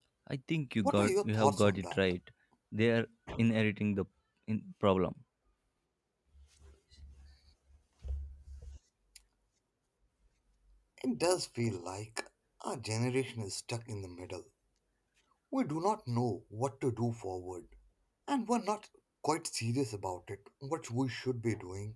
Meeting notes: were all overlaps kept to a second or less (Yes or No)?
No